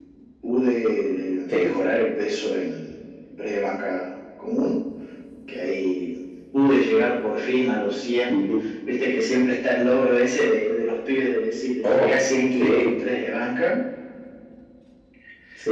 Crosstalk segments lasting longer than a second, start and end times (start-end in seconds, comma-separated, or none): none